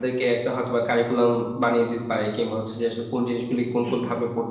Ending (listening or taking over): listening